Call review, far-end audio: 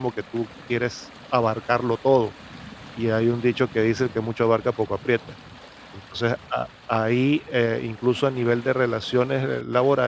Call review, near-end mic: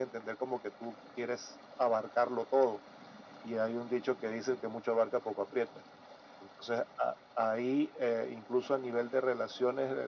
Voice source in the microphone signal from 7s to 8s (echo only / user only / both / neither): echo only